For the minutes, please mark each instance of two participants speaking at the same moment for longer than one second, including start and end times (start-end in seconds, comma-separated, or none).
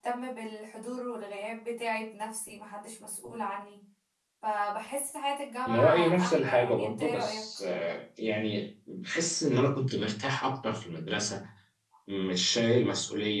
5.7-7.5